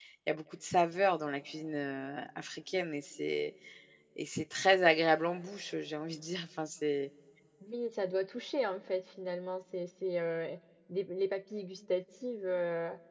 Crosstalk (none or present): none